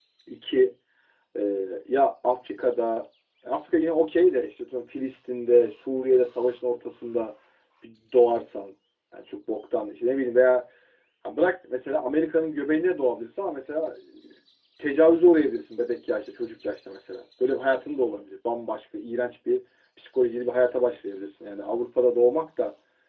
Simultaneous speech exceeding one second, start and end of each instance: none

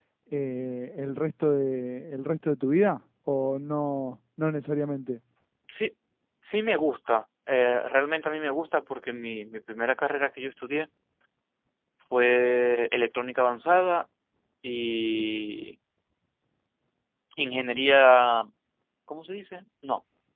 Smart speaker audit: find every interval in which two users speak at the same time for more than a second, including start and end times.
none

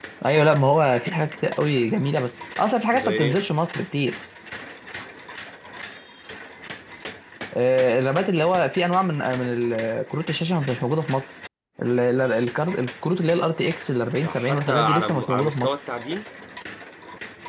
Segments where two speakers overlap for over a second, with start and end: 14.2-15.8

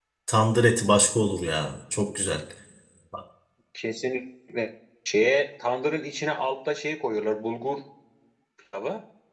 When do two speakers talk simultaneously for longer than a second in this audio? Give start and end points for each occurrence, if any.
none

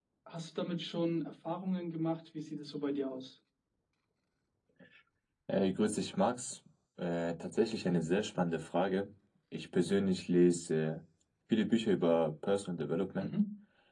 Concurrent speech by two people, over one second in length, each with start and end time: none

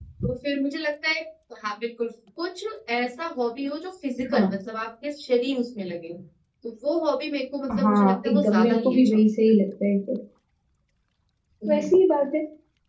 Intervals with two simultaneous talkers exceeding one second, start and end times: 7.8-9.2

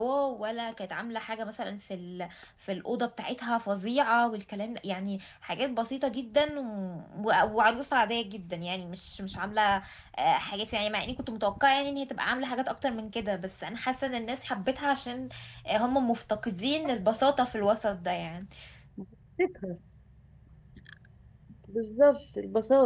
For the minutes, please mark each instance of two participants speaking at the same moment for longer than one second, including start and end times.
none

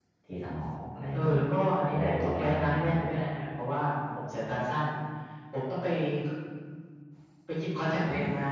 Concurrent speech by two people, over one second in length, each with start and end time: 1.9-3.1

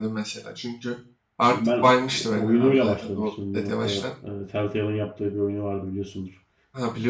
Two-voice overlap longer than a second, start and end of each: 2.4-4.1

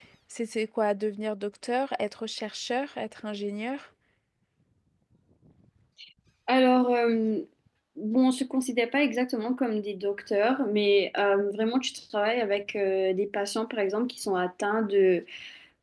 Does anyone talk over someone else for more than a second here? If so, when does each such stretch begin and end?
none

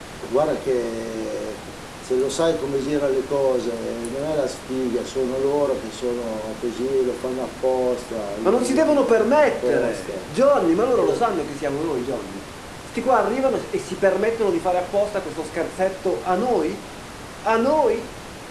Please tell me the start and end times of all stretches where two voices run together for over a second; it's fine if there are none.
8.4-10.2

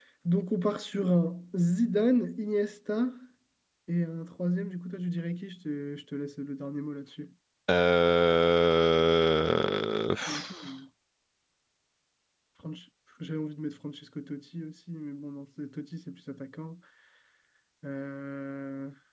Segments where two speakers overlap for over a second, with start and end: none

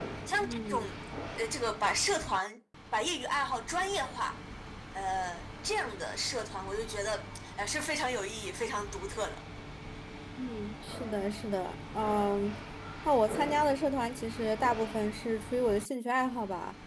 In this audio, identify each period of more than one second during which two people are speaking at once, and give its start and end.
none

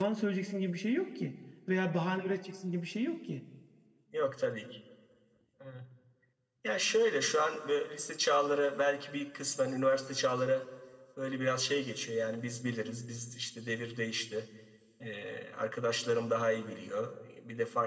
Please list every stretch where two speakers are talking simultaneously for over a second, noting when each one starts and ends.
none

